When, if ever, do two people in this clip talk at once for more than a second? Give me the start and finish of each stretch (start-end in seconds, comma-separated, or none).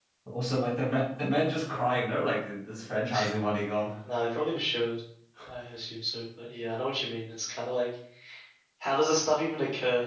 none